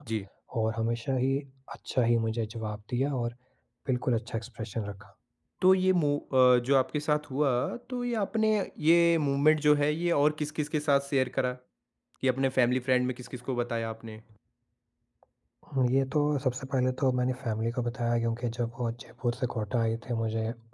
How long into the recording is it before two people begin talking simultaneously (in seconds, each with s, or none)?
none